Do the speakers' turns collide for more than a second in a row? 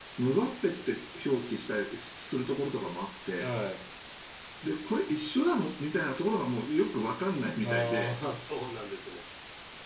No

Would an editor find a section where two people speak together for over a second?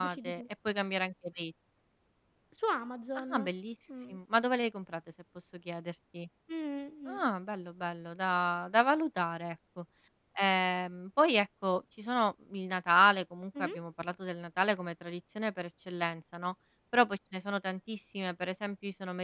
No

